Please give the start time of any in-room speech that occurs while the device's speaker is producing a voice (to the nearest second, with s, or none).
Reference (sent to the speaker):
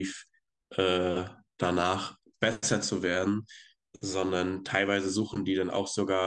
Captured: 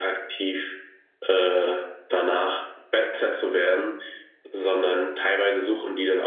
none